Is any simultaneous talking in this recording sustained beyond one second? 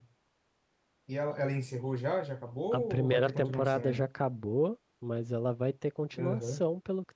Yes, from 2.7 s

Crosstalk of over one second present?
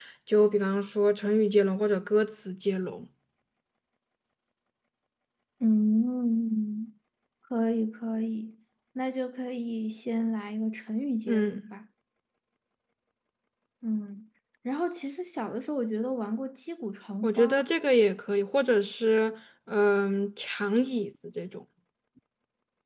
No

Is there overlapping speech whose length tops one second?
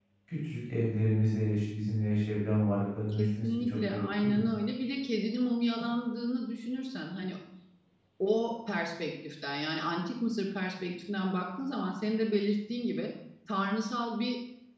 Yes, from 3.1 s

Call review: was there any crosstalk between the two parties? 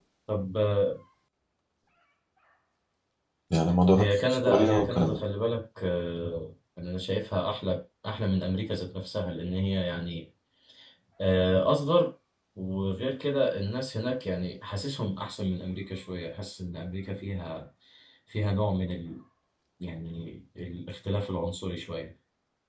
Yes, from 3.9 s

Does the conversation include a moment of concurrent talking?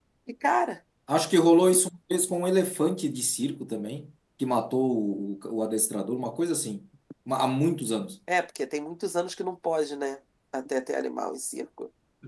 No

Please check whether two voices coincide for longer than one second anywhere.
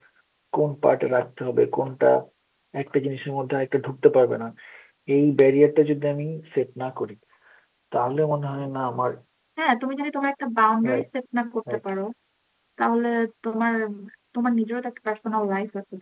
No

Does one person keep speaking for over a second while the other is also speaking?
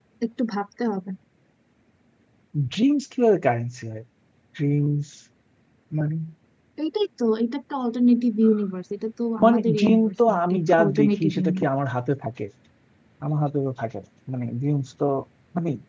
Yes, from 9.4 s

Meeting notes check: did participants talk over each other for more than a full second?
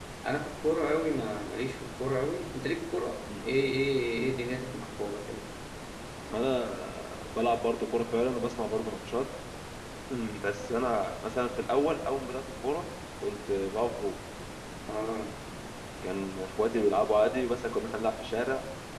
No

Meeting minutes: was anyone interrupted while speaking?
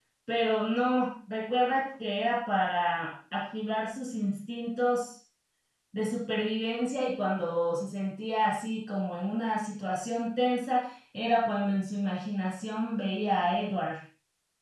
No

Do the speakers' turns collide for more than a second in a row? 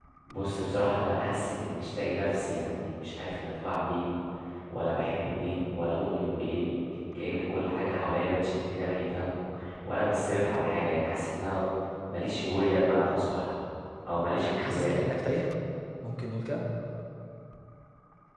No

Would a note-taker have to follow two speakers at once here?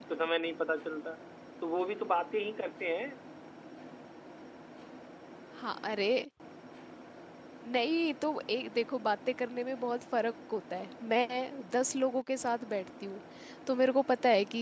No

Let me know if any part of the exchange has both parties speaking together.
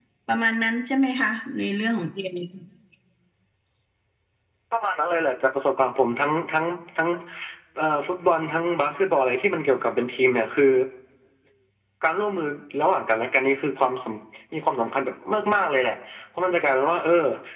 No

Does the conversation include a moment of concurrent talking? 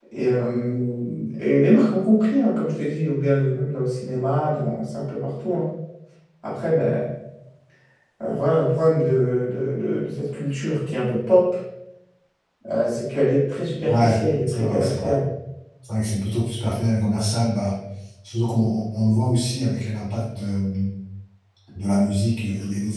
Yes, from 13.9 s

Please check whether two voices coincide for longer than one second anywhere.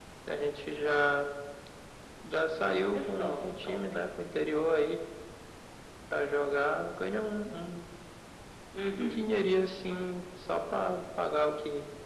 Yes, from 2.6 s

